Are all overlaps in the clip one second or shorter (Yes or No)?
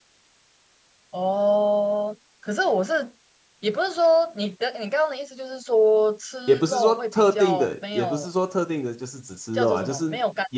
No